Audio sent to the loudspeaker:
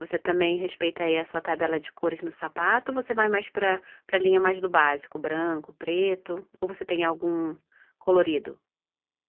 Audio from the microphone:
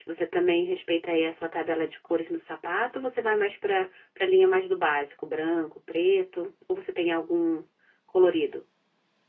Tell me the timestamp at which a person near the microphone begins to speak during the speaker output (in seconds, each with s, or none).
none